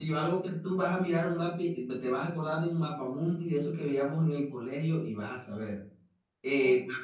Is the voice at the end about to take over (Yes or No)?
No